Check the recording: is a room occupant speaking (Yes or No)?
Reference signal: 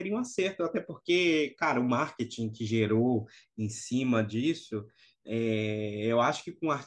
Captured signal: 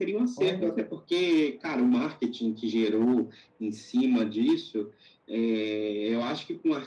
Yes